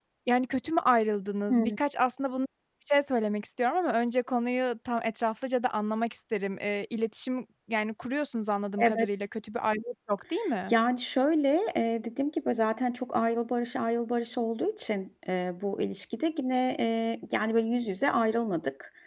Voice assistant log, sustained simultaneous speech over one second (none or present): none